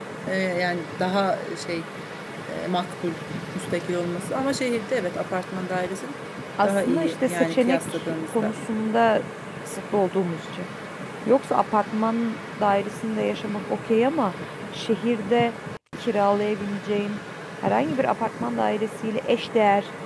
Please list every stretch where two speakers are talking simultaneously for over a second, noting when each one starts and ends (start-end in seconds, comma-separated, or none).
6.6-8.5